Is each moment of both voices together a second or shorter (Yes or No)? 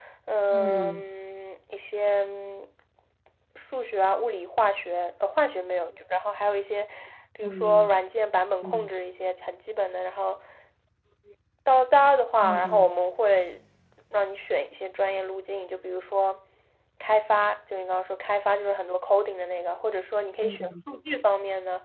Yes